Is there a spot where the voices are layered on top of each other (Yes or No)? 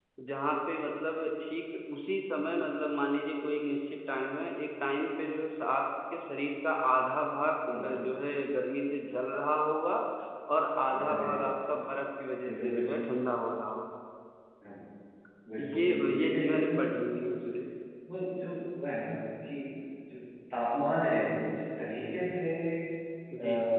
Yes